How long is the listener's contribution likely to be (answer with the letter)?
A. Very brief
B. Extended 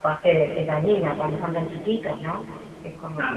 B